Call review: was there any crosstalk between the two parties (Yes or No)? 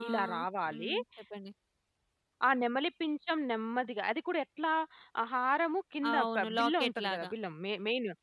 Yes